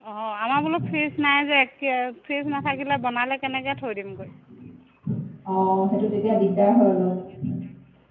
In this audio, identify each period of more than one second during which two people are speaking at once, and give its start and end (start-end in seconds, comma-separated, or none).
none